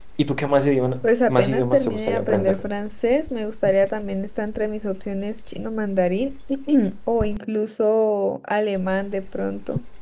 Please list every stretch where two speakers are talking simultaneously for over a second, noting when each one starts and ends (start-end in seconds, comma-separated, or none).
1.0-2.6